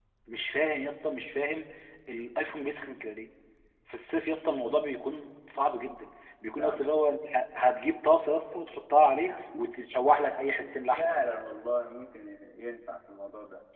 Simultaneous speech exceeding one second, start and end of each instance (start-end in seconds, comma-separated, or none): none